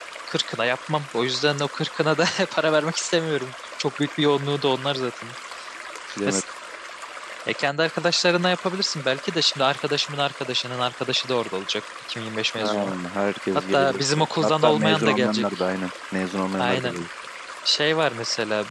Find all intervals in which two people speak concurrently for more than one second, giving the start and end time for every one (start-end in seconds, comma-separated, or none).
13.6-15.7